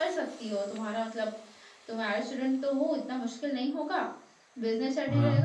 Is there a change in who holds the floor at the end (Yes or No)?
No